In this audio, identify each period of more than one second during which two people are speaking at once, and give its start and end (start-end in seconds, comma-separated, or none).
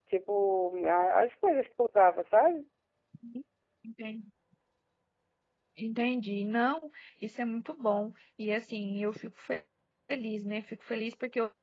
none